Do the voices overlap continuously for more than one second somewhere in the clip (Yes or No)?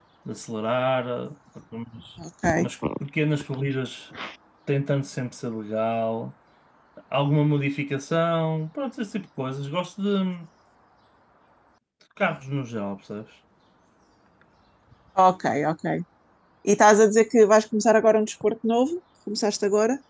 No